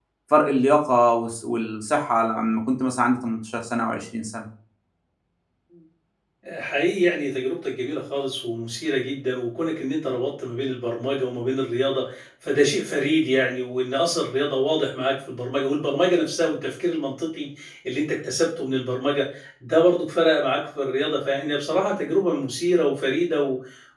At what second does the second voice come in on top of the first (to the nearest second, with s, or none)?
none